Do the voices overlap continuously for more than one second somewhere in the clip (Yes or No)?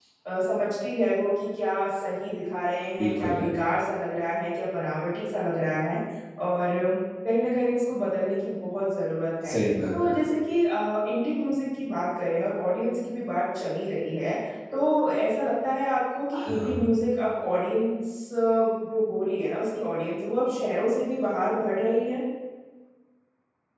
No